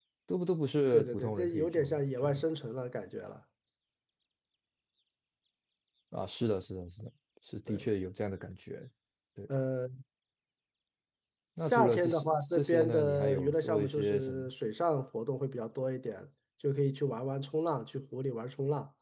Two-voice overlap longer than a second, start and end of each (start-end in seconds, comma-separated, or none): 0.9-2.4, 11.6-14.4